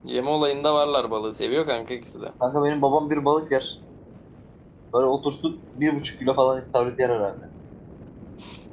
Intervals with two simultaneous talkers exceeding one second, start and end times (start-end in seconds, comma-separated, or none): none